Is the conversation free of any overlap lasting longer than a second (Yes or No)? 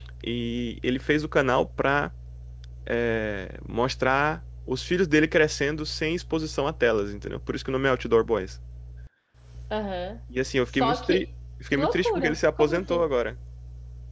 No